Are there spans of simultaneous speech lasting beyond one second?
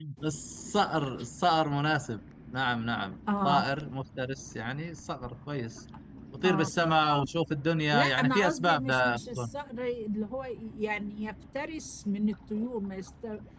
Yes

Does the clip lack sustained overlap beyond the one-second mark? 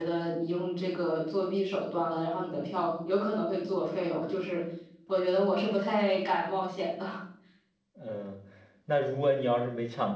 Yes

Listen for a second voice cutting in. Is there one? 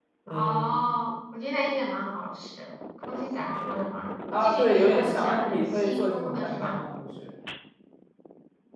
Yes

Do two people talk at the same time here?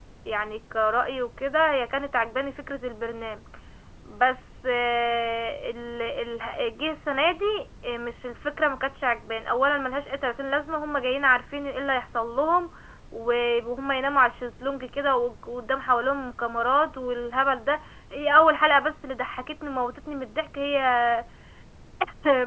No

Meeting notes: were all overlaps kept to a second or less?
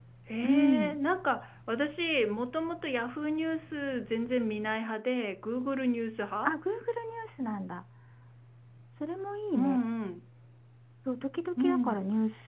Yes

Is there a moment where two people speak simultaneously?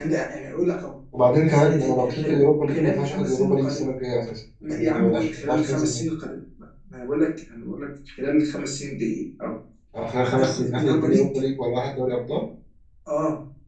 Yes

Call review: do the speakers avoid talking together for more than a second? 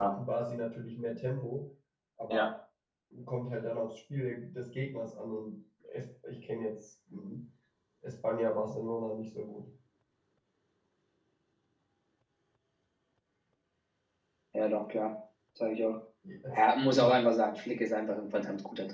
Yes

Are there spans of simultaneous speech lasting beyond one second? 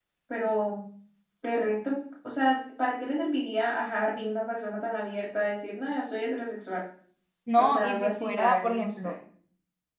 Yes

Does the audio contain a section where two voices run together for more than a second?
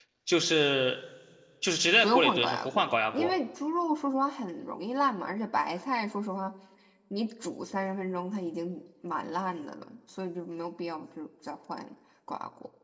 Yes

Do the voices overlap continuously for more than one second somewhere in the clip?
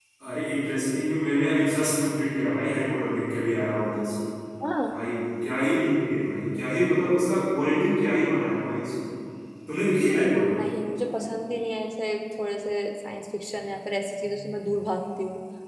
No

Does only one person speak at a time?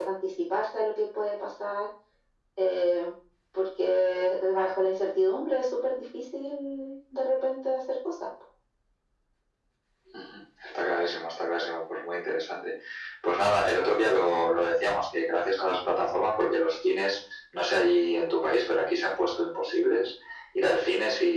Yes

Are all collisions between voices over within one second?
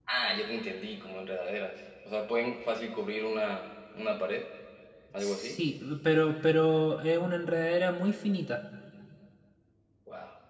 Yes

